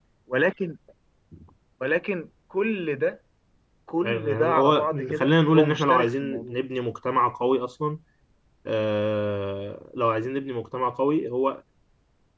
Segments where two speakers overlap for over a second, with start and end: 4.0-6.6

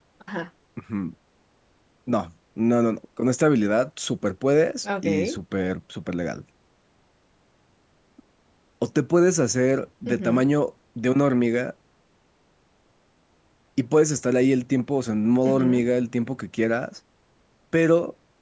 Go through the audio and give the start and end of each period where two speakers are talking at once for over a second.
none

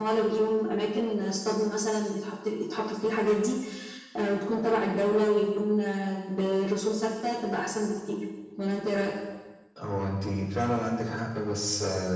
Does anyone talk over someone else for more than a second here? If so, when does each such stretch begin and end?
none

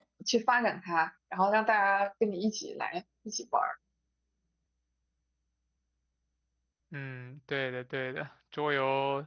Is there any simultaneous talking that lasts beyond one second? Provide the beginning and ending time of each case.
none

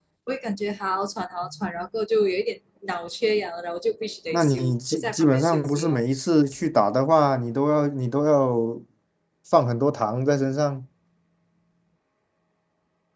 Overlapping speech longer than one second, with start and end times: 4.3-6.0

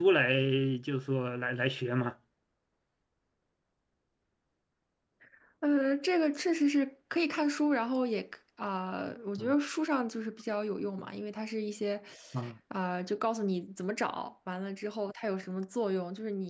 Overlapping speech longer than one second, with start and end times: none

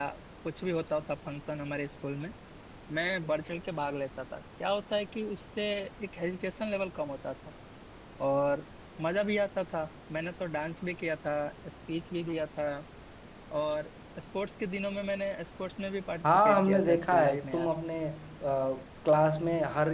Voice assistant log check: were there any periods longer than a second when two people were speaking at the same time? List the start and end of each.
16.2-17.7

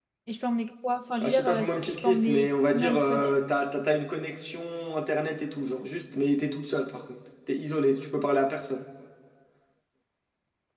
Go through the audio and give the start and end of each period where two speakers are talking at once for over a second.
1.2-3.3

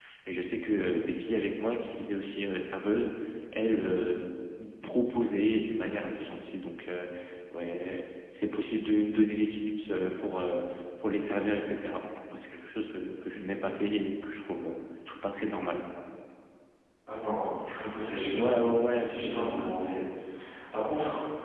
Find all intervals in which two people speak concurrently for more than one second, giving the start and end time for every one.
none

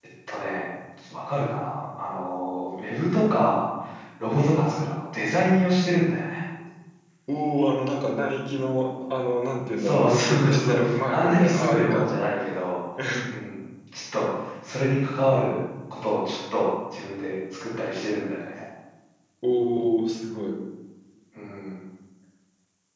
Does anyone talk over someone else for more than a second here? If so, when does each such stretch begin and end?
9.8-12.1

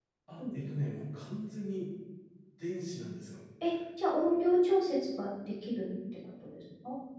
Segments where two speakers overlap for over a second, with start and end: none

